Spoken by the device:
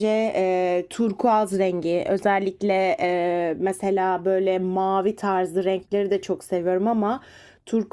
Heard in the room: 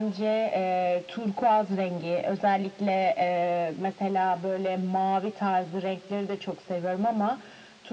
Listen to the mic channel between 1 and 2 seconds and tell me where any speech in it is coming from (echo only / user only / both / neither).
echo only